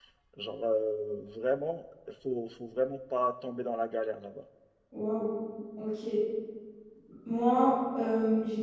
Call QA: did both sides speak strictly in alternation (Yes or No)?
Yes